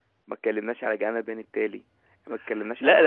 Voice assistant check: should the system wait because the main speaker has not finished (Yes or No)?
No